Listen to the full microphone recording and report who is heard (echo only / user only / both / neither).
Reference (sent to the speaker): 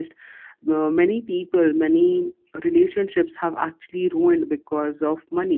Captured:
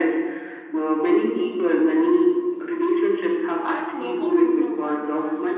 both